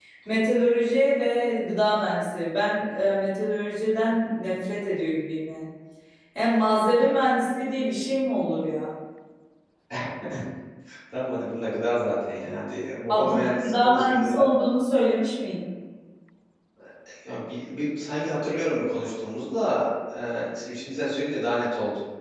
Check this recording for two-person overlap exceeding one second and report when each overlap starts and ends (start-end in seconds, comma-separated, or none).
13.1-14.3